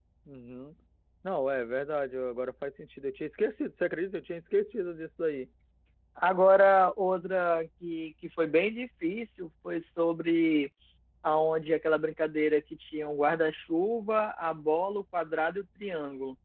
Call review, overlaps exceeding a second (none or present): none